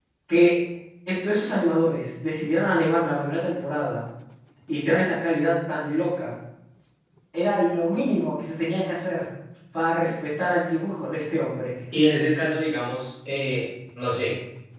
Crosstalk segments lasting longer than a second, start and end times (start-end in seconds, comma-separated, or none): none